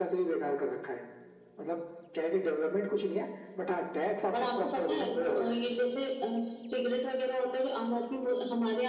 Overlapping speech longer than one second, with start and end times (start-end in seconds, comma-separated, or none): 4.3-5.7